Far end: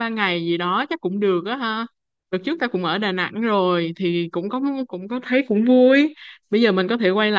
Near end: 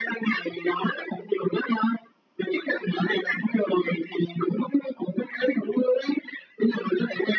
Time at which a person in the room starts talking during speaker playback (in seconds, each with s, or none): none